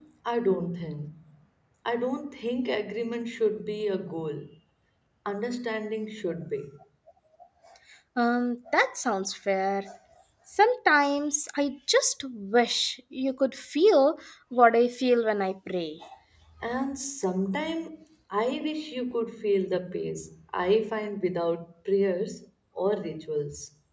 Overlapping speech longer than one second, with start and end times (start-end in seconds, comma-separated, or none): none